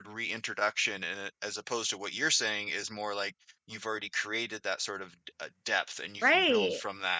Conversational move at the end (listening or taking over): taking over